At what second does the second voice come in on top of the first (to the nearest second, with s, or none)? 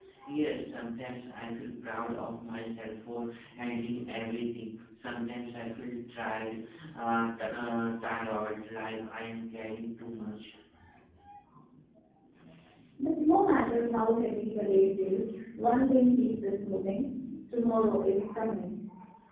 none